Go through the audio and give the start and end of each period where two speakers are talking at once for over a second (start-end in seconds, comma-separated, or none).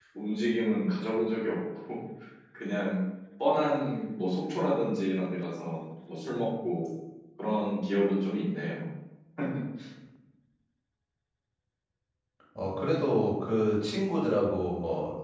none